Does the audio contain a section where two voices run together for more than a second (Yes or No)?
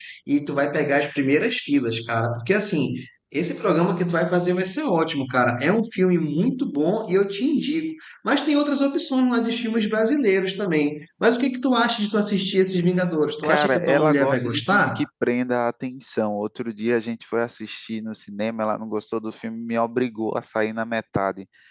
Yes